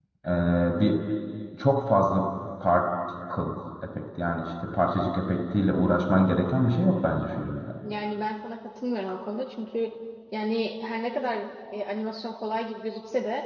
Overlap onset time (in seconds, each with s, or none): none